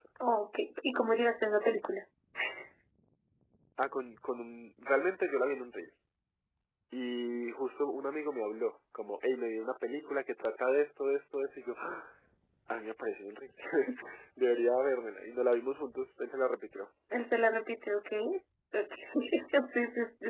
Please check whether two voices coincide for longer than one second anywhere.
No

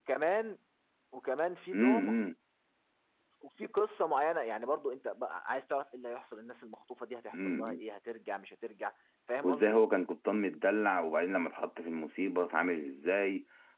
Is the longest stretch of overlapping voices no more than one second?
Yes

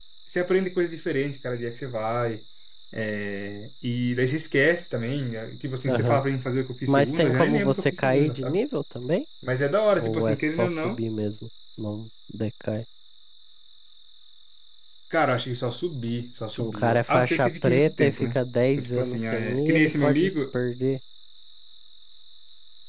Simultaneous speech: Yes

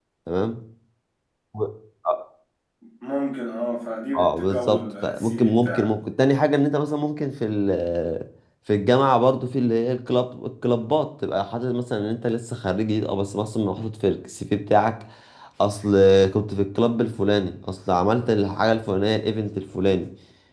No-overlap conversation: No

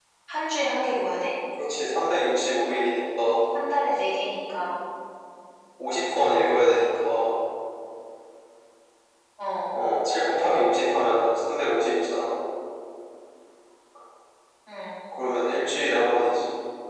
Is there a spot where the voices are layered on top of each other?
No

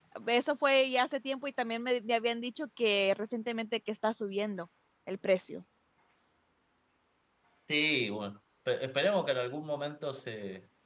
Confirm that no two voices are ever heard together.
Yes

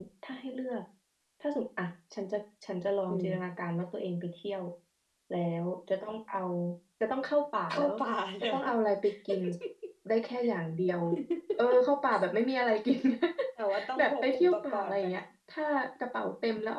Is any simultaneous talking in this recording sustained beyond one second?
Yes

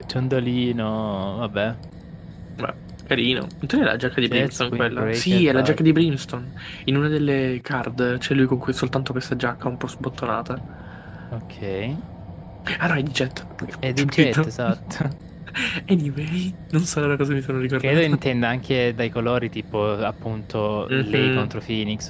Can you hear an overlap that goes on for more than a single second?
Yes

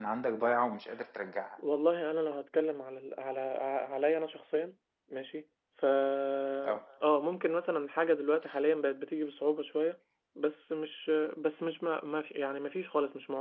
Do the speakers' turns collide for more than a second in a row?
No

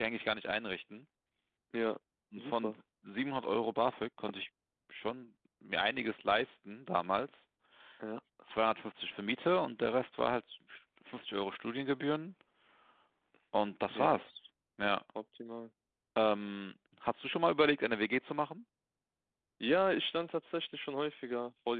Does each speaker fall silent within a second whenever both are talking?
Yes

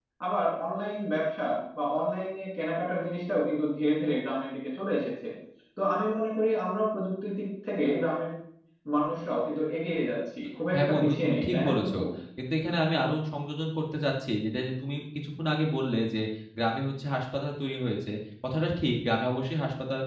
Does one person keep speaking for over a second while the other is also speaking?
Yes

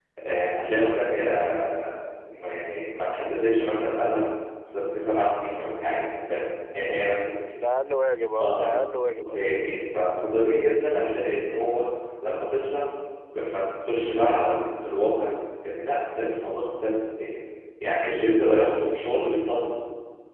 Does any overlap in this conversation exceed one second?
No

